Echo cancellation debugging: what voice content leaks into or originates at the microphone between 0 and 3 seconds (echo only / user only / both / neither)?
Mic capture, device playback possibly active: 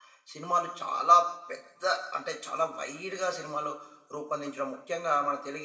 user only